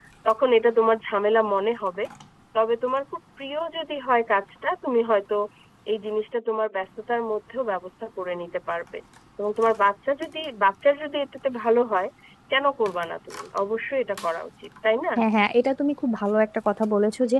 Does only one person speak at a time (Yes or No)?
Yes